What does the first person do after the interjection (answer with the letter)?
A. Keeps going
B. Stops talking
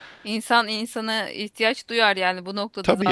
A